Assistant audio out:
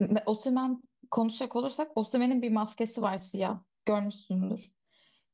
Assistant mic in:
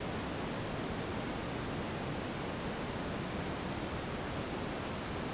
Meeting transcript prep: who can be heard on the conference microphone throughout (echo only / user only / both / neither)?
neither